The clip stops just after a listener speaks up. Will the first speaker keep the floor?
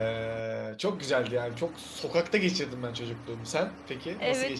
No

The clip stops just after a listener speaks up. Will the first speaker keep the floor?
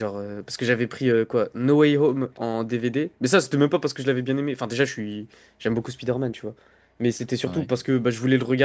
Yes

